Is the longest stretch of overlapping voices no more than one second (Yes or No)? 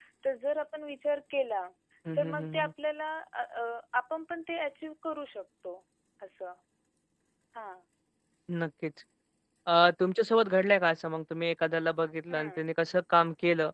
Yes